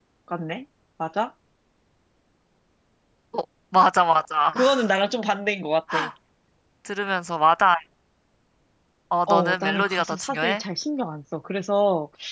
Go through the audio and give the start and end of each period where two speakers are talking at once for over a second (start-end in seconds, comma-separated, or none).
9.3-10.6